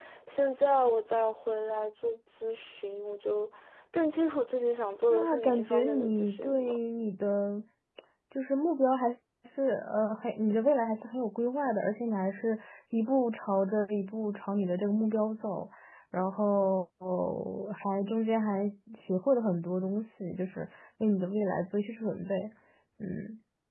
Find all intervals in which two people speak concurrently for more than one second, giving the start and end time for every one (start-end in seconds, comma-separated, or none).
5.1-6.8